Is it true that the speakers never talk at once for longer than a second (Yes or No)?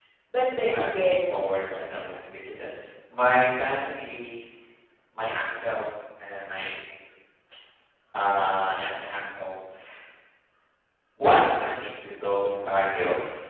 No